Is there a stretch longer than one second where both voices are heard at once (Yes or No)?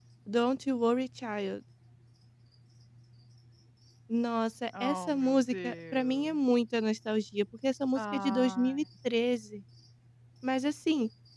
Yes